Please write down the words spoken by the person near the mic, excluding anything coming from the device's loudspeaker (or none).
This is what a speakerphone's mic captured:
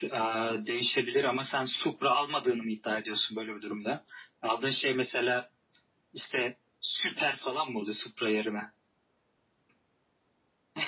none